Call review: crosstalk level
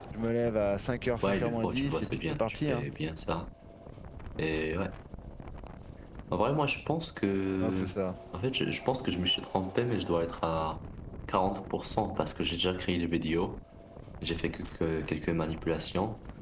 present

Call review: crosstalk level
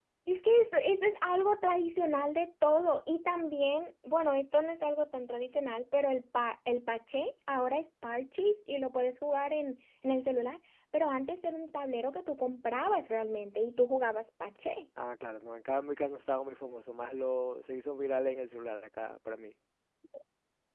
none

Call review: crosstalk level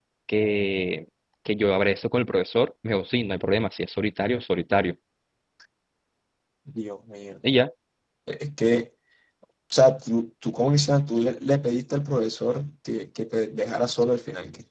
none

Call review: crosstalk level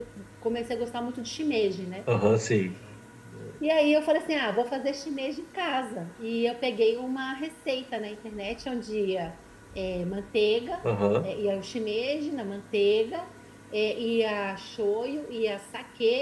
none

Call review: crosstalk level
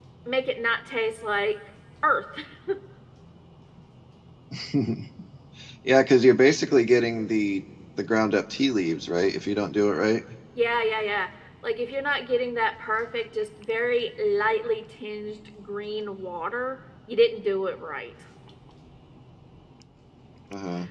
none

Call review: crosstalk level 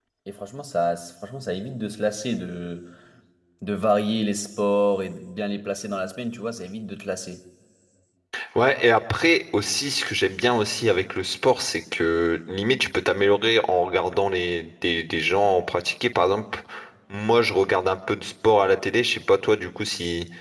none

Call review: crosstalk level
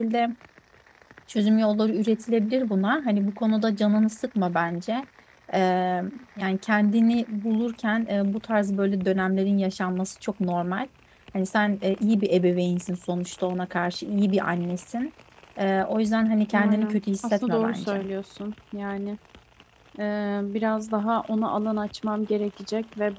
present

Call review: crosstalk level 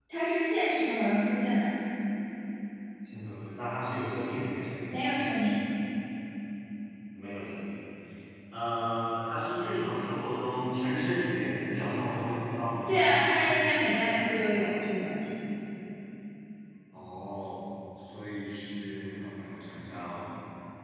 none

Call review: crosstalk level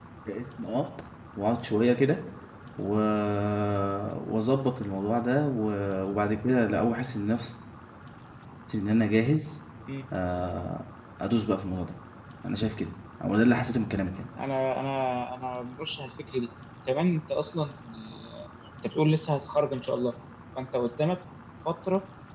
none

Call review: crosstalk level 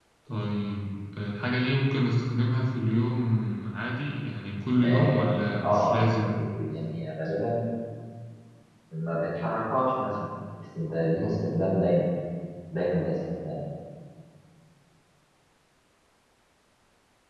present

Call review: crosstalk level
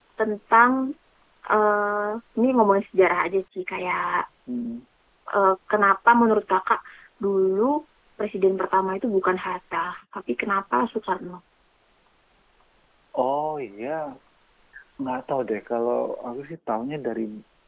none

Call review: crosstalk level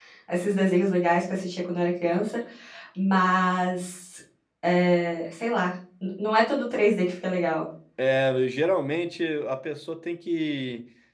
none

